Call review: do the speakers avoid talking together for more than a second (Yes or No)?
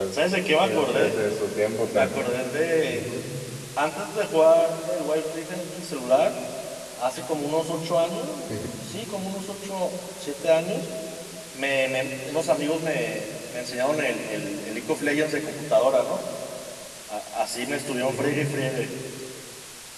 Yes